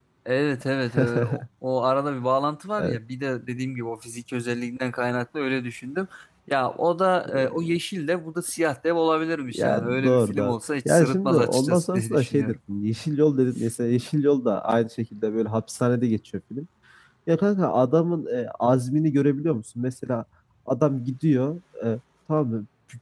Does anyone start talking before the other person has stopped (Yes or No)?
Yes